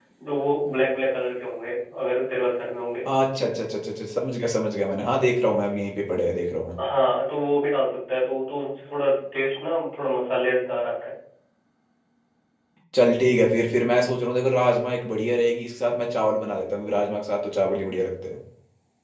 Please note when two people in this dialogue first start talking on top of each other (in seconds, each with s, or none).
none